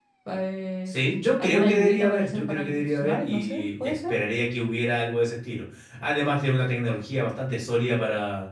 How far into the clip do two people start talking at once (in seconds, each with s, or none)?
1.4 s